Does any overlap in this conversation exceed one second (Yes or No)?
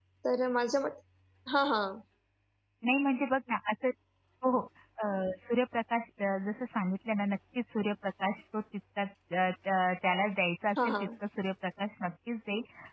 No